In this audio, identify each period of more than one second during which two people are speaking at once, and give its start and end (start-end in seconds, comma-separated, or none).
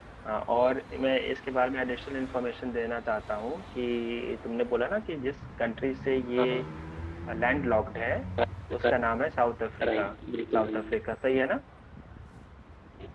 none